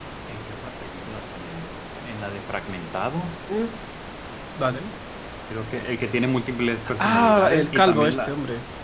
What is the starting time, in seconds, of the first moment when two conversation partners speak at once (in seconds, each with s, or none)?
7.0 s